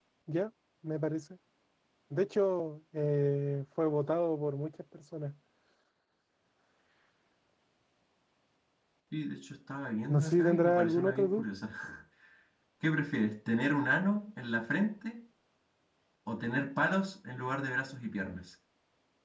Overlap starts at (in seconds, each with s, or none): 10.1 s